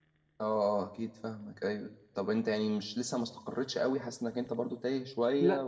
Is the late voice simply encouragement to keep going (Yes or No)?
No